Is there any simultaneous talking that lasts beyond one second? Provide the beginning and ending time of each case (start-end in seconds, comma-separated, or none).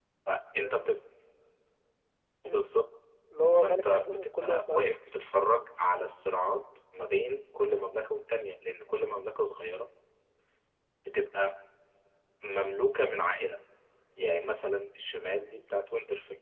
3.6-4.8